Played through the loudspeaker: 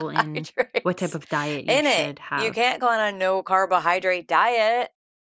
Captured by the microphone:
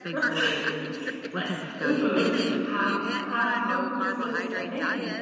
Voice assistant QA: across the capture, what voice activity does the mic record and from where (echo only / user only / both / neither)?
both